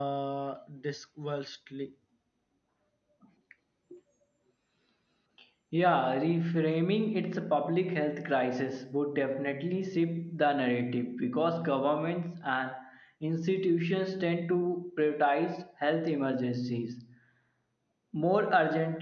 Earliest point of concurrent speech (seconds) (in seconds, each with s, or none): none